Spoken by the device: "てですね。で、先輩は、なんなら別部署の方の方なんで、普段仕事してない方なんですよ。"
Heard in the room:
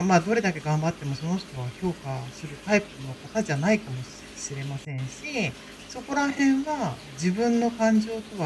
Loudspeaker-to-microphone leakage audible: No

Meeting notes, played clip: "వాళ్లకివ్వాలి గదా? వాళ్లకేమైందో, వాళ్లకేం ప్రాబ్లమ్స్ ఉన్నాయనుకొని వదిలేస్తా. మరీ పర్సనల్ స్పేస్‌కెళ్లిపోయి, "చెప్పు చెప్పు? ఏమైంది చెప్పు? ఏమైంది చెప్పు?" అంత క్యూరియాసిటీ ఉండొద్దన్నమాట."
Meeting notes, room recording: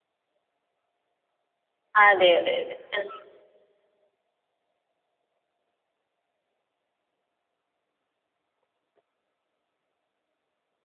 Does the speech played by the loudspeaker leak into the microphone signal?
No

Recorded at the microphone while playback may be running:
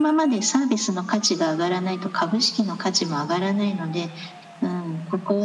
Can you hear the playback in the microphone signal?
Yes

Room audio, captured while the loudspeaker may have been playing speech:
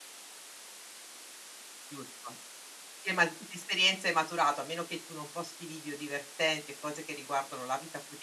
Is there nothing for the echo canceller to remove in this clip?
Yes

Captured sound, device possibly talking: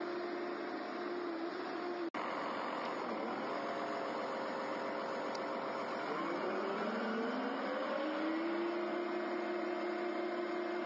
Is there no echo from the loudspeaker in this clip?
Yes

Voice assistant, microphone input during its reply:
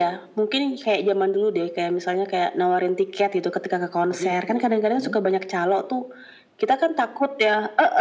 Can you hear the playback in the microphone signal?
Yes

